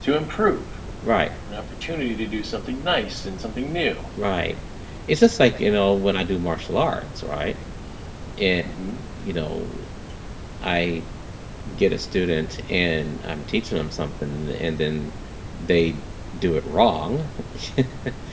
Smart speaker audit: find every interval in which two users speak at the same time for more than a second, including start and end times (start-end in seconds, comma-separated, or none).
none